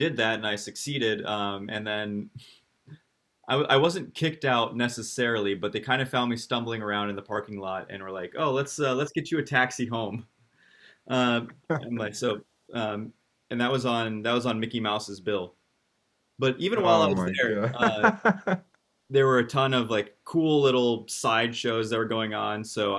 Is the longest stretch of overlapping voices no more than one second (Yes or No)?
No